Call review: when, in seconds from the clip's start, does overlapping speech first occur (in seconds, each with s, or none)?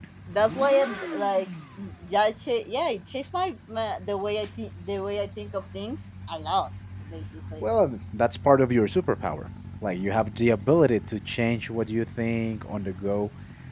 none